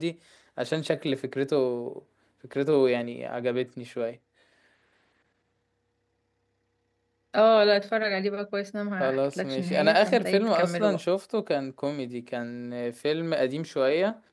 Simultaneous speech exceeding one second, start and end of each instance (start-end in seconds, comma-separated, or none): 9.0-11.0